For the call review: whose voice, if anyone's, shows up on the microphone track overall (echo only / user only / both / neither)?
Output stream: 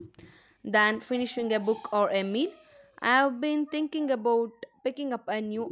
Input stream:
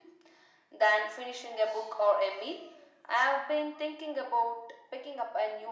echo only